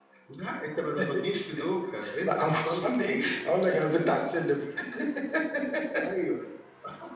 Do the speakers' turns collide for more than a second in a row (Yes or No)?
Yes